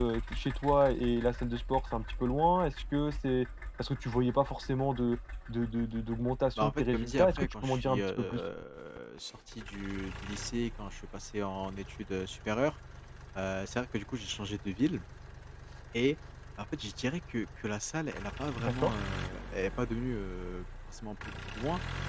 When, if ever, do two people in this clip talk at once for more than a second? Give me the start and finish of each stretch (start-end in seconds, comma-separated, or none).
6.6-8.4